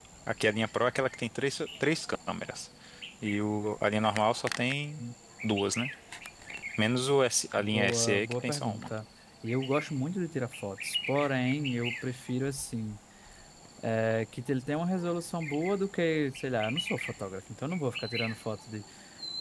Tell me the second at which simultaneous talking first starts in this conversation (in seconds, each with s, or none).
7.6 s